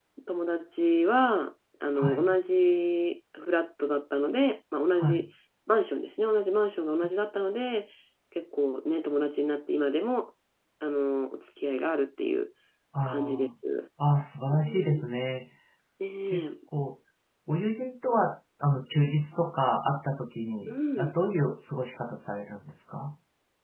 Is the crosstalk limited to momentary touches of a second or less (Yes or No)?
Yes